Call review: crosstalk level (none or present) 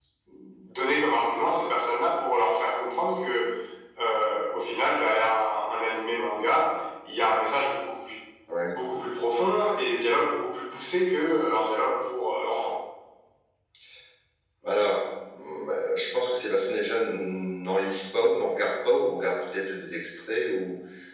none